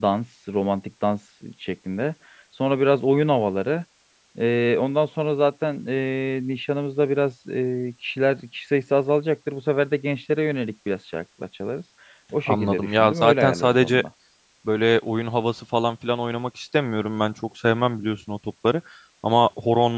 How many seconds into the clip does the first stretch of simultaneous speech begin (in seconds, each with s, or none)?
12.5 s